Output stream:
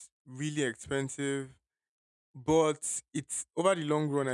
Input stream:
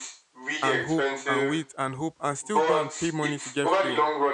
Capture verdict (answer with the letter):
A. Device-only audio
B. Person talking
B